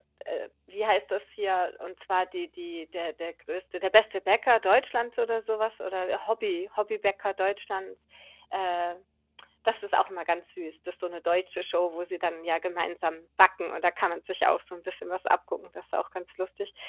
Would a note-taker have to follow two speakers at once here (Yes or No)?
No